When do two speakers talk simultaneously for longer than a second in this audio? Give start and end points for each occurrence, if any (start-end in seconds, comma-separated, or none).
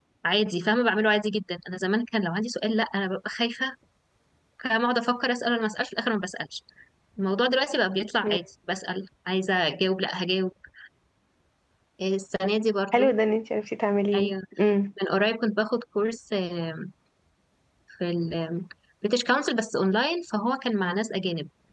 none